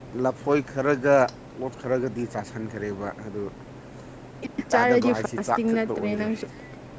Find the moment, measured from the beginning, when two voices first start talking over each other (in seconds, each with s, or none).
4.7 s